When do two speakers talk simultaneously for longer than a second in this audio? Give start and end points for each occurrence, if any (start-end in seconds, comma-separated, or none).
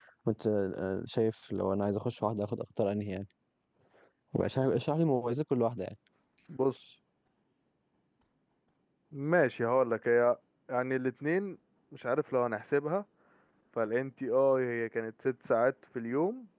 none